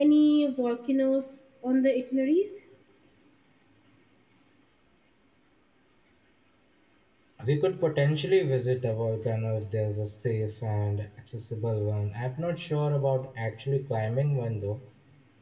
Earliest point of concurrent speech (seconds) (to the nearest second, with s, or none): none